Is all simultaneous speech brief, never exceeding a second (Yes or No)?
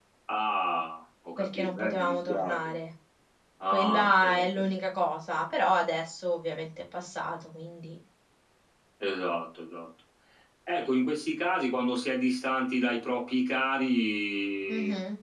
No